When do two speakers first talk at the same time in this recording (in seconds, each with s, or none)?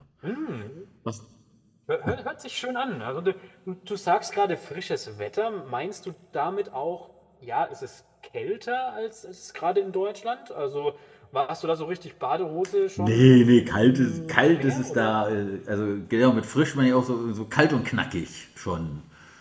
13.0 s